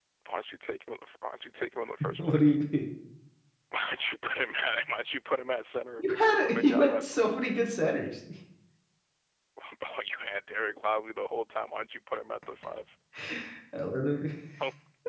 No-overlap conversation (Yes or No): No